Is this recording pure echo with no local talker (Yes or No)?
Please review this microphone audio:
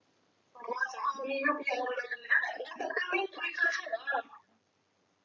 Yes